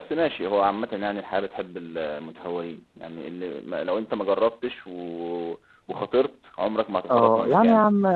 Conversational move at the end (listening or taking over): taking over